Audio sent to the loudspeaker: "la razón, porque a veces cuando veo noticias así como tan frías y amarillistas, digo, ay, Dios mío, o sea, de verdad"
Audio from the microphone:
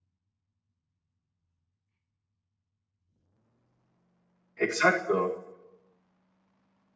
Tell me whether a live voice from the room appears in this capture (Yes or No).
Yes